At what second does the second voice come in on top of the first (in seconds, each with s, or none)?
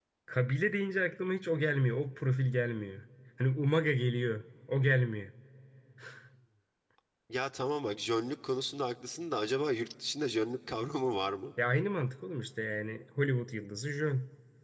none